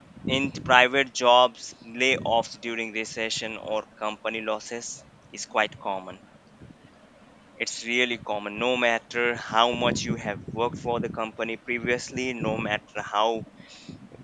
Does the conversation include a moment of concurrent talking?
No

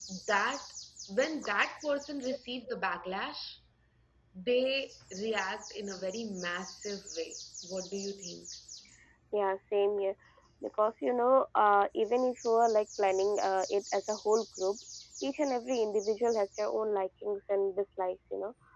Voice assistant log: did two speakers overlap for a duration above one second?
No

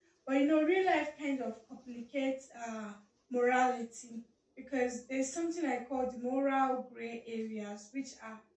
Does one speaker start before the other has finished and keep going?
No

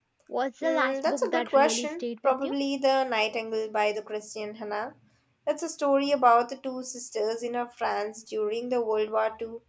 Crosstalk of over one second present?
Yes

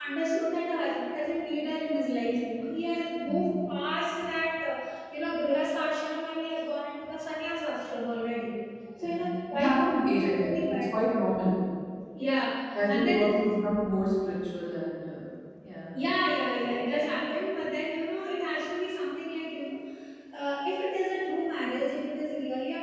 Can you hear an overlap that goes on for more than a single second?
Yes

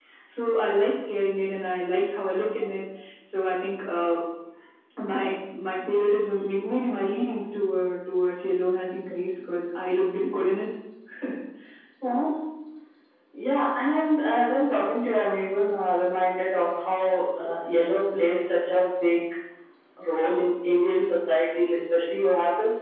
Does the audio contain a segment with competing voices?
No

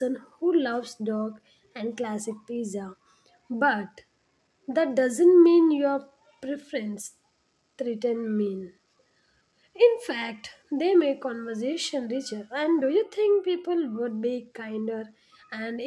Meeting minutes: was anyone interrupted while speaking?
No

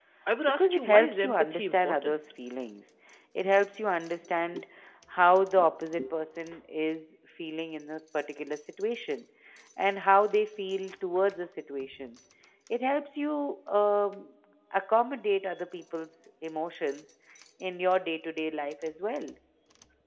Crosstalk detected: Yes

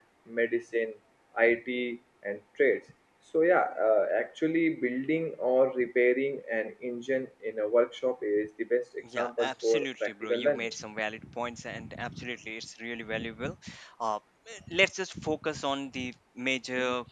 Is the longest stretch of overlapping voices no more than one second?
No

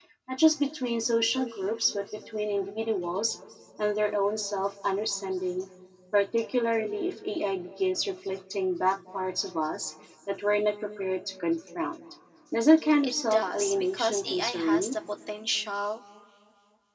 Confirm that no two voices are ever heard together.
No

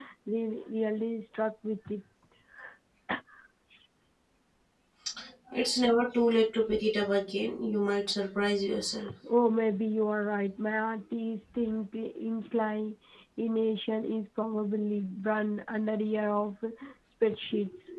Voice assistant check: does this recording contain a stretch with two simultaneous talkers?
No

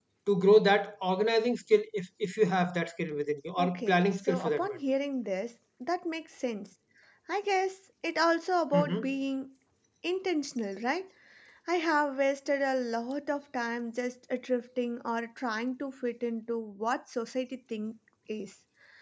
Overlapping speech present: Yes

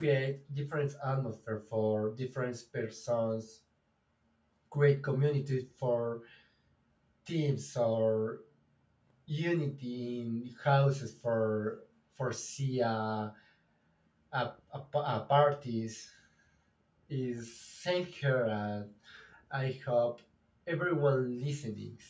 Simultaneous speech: No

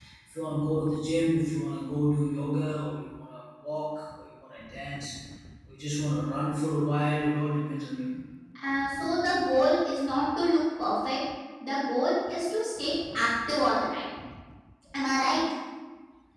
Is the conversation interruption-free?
Yes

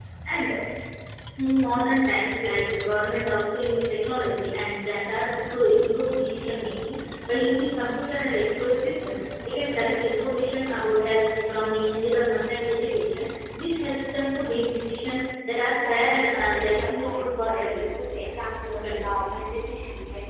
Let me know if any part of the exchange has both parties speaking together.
Yes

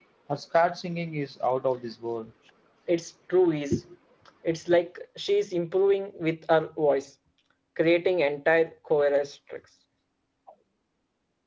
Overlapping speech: No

